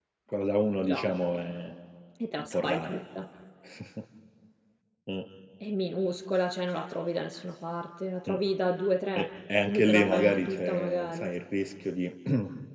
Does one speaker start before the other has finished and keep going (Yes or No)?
Yes